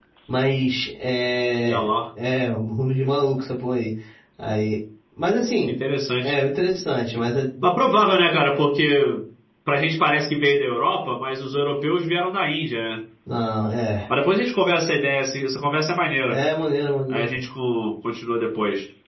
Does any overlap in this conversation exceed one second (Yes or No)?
No